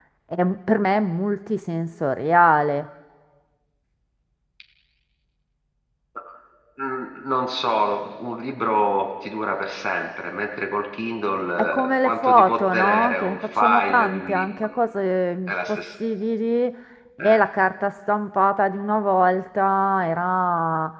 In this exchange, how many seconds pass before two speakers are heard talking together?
12 s

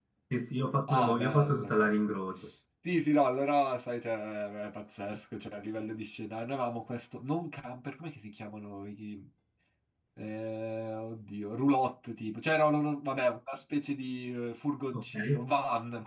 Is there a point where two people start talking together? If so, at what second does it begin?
1 s

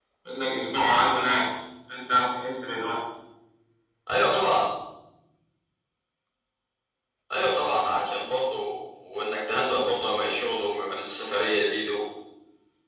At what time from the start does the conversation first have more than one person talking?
none

